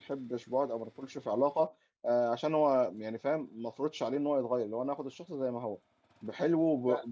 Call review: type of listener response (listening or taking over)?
listening